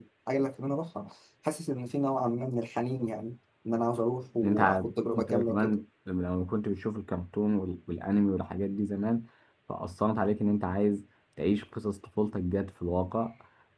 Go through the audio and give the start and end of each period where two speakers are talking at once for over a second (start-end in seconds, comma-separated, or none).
4.4-5.7